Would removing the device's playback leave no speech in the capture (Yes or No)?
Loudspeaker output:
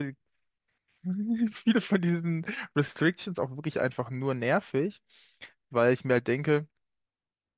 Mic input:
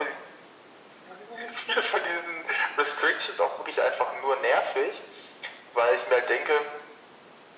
Yes